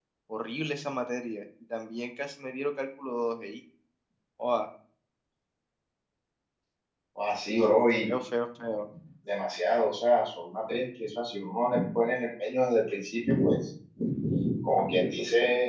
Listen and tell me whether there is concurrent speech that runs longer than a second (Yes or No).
No